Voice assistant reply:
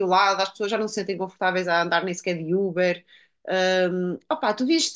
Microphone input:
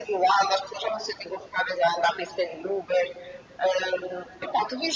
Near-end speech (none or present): none